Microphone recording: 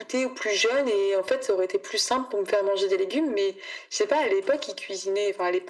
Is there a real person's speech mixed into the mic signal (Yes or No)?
No